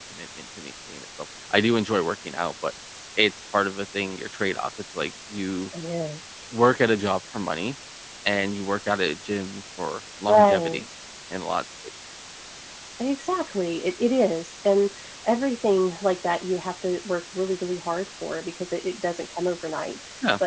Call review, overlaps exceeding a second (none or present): none